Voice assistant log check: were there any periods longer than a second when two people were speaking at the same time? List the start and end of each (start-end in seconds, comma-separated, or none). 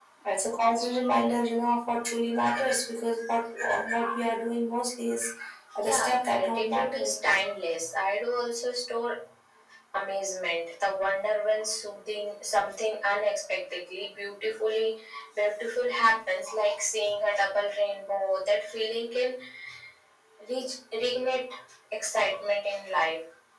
5.8-7.1